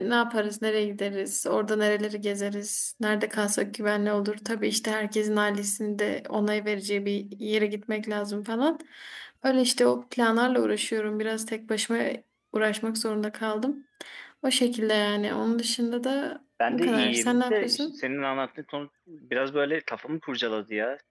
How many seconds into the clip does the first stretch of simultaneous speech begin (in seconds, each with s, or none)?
16.6 s